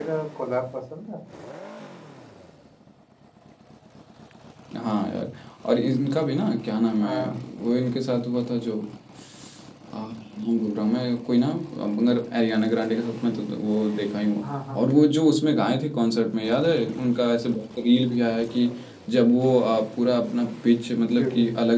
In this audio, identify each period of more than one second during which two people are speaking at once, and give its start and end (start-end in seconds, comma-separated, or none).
none